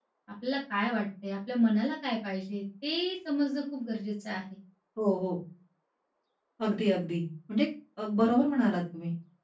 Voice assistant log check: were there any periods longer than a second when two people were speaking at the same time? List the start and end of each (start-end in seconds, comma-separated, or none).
none